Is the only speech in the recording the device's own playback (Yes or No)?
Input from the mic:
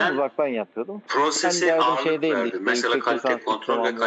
No